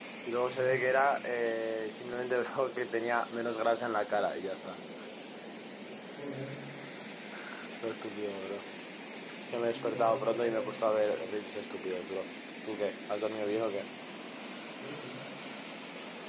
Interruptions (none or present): present